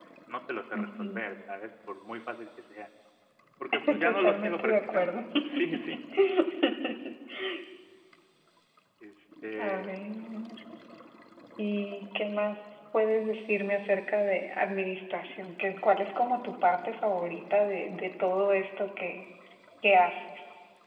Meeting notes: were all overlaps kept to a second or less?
No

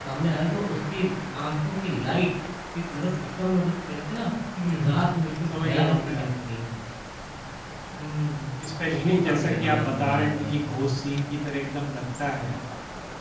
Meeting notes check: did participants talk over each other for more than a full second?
Yes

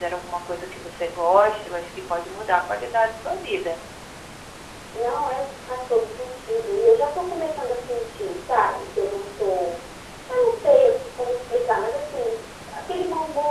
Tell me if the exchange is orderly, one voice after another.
Yes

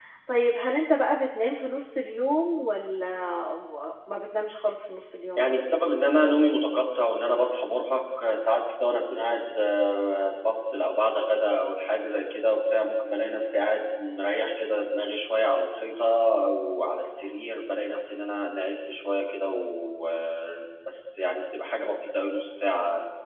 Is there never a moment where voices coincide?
Yes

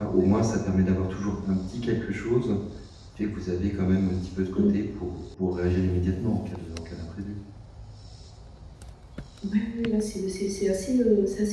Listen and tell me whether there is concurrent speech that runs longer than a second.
No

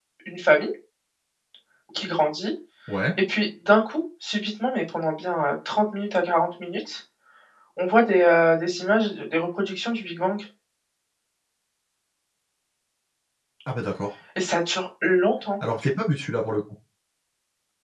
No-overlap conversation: Yes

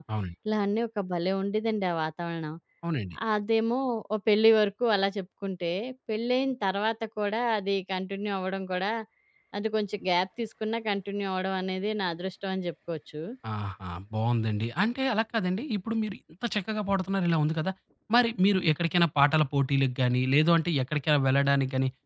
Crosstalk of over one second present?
No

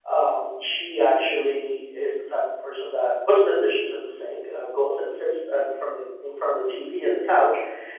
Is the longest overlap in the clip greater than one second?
No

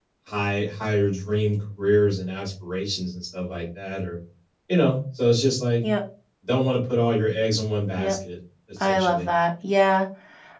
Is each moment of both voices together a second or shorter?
Yes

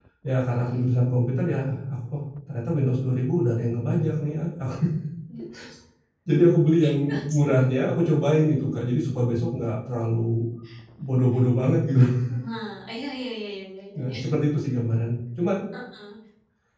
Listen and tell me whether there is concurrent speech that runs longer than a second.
No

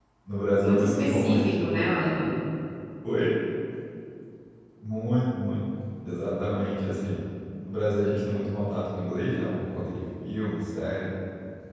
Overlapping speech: Yes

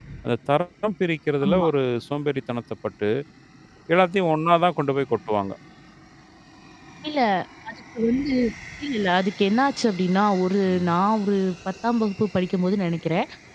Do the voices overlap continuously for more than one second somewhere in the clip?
No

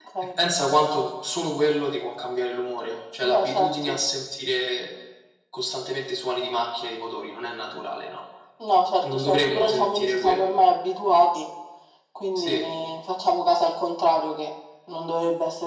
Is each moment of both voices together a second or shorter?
No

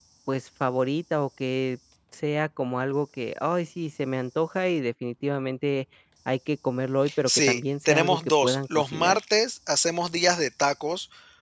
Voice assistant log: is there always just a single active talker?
No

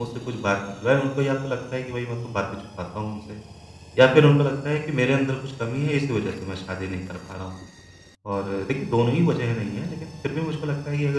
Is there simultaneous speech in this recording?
No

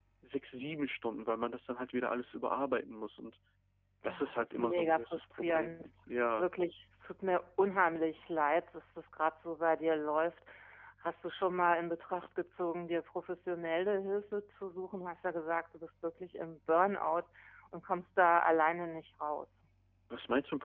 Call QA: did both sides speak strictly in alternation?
No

